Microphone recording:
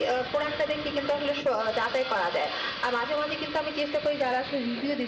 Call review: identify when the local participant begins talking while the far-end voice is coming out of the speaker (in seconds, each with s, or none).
none